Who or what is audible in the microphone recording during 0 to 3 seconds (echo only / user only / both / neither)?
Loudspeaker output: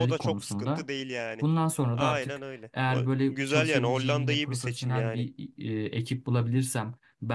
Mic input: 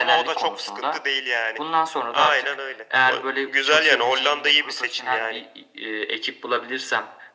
echo only